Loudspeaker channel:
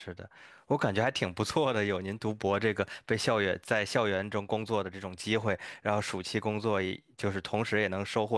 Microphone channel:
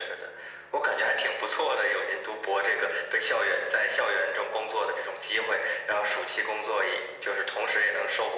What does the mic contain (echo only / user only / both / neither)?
echo only